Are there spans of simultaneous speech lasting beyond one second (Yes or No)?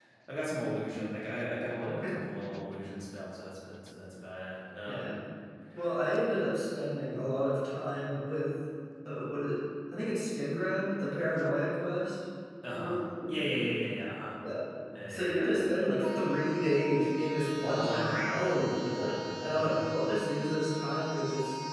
Yes